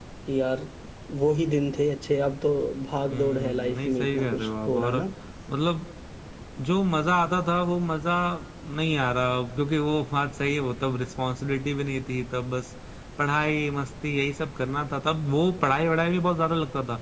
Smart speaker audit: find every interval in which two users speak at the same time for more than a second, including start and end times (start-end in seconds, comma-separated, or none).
3.1-5.0